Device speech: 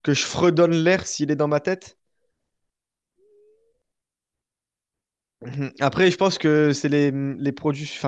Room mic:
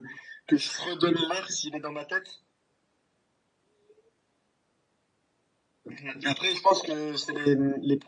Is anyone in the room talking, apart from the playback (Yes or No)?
No